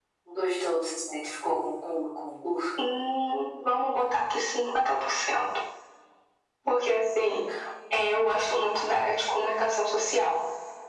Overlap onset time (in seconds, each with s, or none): none